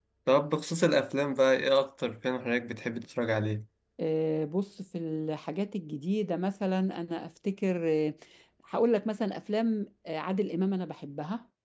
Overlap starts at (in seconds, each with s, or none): none